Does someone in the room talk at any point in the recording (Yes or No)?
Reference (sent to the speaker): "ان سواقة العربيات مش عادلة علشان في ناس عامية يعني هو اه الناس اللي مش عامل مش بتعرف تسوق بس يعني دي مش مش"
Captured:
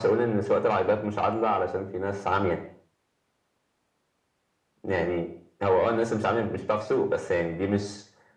No